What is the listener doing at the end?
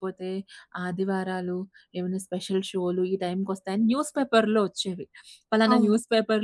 listening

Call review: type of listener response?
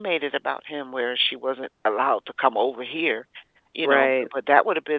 listening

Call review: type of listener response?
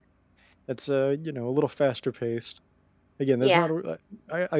listening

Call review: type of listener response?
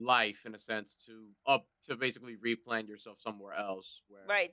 taking over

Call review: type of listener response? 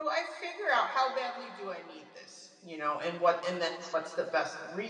listening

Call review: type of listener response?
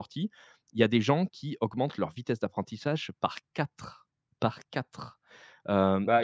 taking over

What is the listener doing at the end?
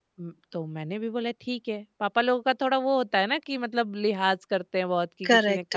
taking over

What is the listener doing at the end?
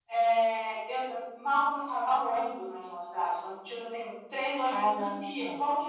listening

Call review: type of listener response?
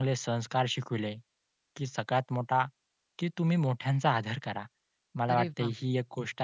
listening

